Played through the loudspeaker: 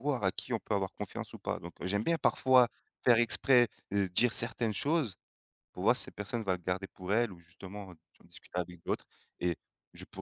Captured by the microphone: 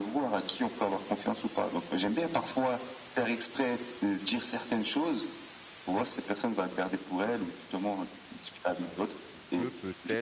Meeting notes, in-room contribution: present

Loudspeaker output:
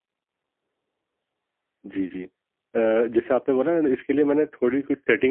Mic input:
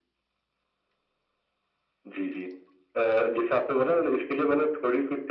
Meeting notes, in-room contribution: none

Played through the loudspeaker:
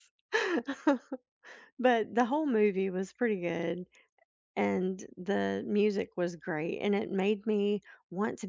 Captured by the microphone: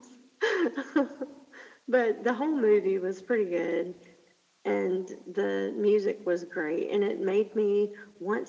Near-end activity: none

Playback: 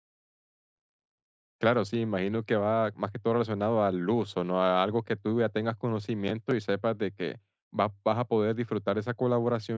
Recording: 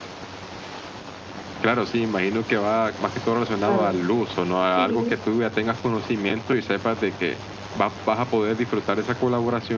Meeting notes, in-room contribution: present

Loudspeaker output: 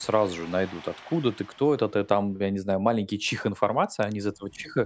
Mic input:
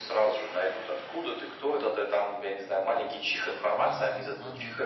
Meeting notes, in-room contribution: present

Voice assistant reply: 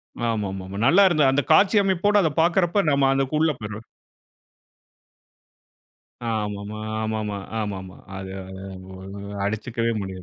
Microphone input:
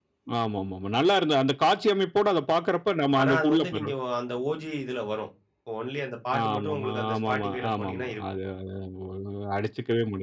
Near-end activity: present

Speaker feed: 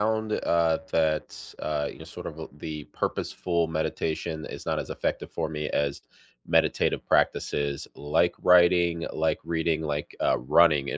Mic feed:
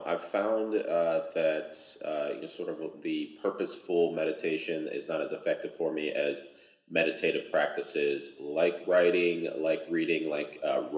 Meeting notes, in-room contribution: none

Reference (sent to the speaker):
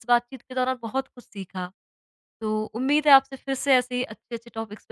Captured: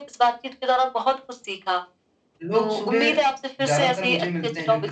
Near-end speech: present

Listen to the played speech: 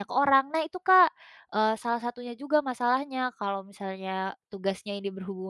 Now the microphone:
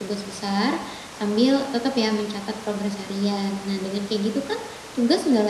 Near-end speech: present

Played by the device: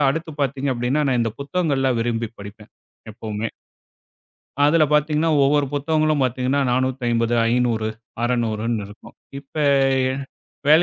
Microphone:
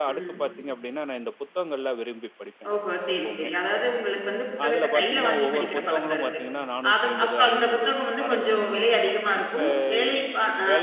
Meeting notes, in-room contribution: present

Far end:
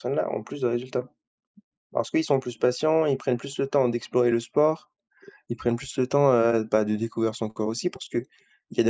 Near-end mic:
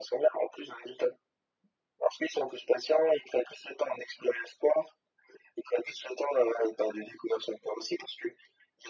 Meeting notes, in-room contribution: none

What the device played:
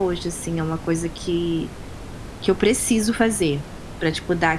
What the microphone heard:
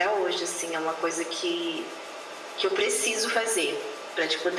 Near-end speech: none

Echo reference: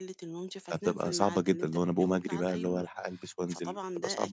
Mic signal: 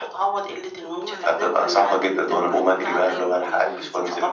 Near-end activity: present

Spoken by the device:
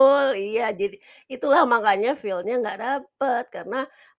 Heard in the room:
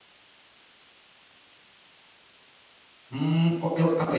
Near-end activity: present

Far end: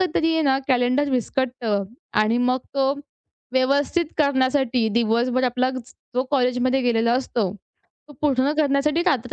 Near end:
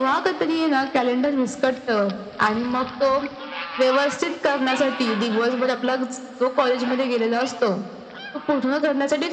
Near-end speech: none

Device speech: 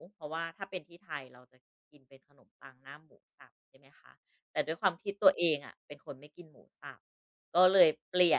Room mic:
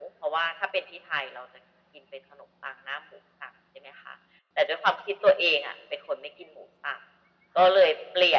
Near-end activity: none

